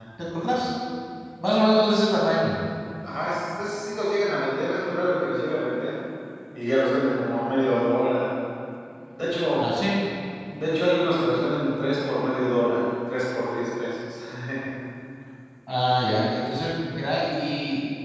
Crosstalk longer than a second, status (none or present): none